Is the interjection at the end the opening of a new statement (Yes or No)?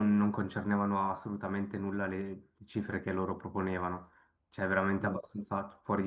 No